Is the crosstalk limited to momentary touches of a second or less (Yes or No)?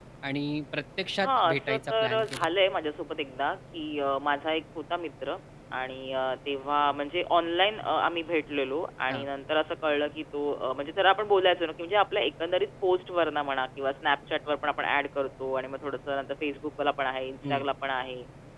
No